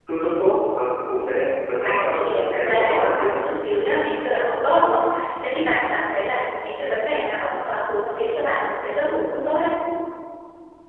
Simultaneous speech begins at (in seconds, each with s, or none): 1.8 s